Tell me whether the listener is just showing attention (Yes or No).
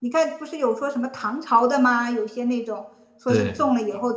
Yes